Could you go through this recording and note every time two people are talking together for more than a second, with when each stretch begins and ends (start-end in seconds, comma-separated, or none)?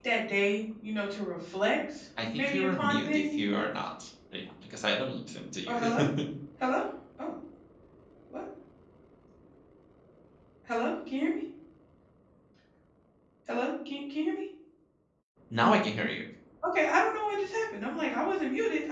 2.3-3.6